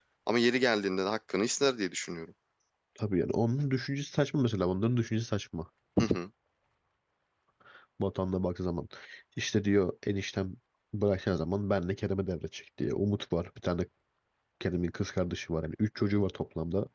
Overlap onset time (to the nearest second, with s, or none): none